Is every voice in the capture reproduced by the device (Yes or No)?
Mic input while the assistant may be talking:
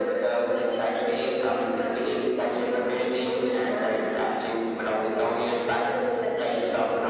Yes